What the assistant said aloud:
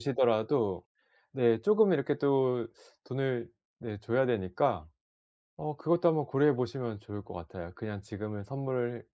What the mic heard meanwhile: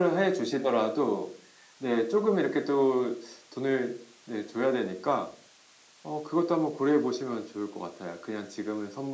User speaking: No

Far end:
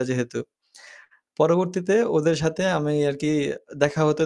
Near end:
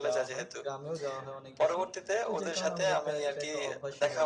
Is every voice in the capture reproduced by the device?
No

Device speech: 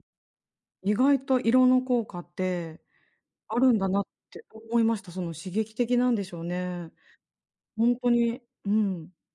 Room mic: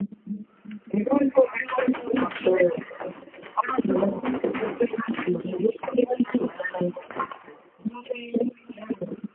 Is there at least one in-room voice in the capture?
No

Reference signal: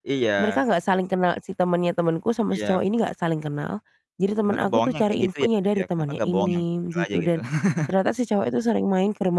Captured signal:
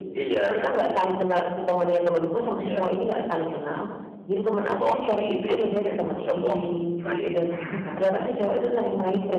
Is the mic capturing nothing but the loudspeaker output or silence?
Yes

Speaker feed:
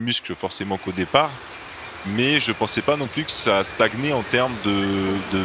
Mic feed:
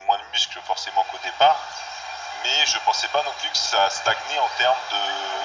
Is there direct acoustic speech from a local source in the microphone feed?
No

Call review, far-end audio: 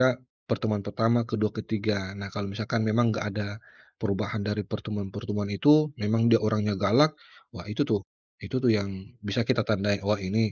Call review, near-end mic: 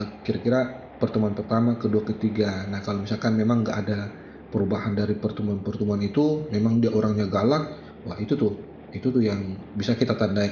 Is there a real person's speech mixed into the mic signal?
No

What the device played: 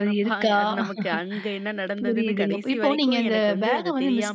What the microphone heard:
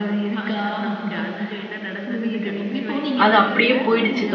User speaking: Yes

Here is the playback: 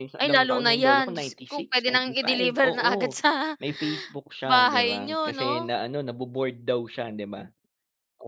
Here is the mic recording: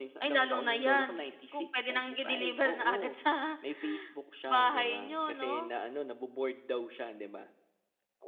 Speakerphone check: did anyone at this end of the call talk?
No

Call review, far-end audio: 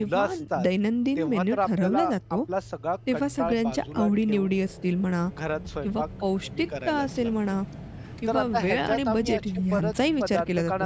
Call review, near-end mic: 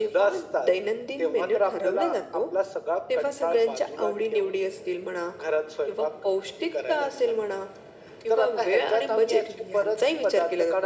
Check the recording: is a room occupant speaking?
No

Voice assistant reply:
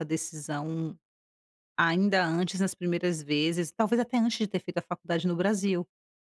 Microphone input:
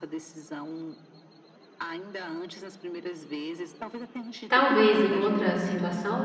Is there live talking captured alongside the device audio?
Yes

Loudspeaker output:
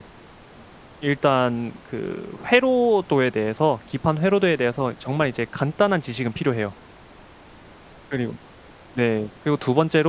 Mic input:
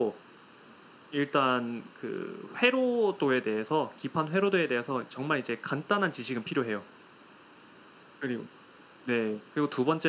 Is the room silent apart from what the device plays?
Yes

